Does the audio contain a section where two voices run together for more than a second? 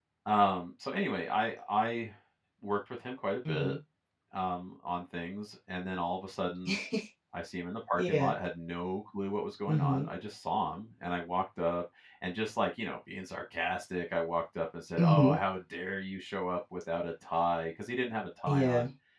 No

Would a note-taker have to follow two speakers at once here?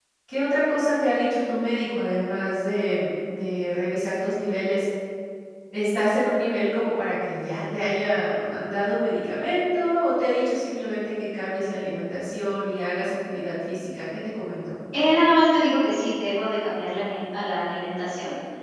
No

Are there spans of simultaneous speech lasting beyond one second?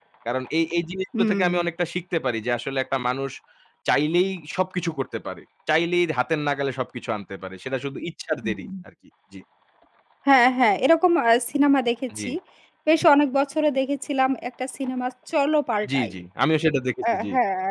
No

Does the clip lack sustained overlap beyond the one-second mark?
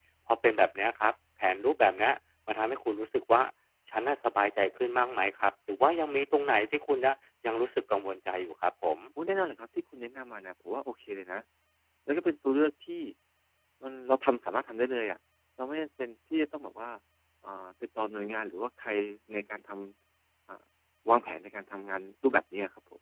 Yes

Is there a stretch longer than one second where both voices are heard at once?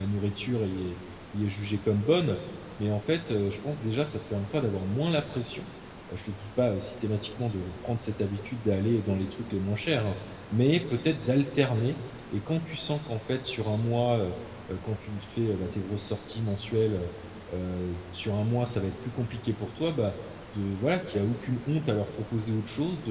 No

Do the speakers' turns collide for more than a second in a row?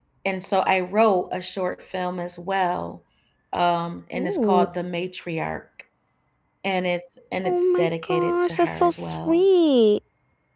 Yes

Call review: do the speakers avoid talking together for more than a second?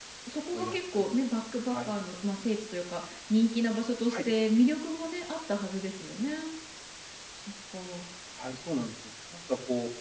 Yes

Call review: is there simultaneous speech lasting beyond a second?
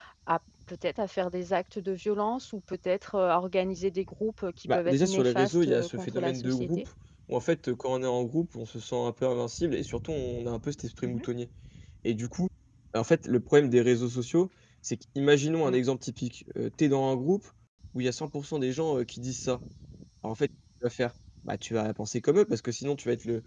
Yes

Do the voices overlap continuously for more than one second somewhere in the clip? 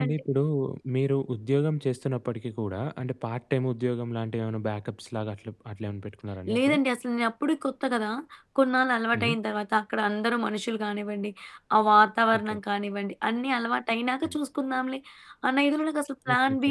No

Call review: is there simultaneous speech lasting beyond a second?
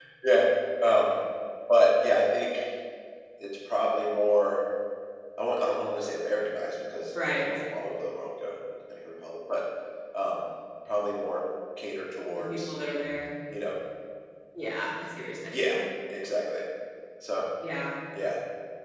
No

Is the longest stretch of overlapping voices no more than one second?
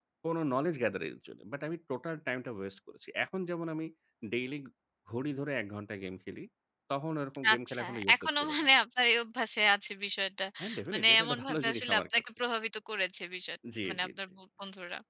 No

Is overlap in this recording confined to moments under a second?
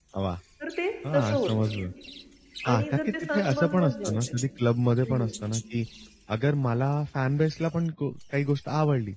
No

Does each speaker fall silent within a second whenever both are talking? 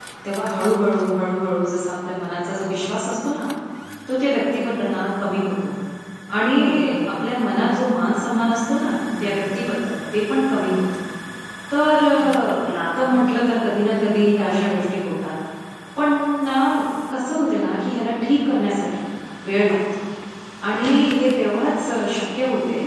Yes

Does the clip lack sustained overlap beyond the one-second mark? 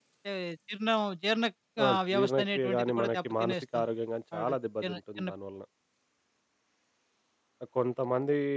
No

